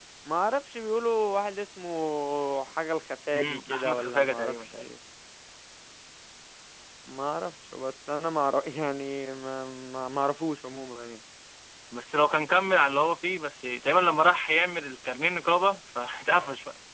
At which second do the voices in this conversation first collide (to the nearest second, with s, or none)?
3 s